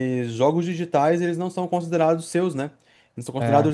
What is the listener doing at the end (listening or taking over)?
listening